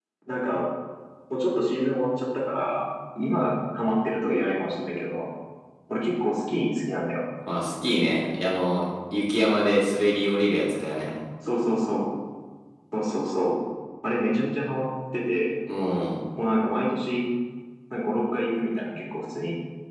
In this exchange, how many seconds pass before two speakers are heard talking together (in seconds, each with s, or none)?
none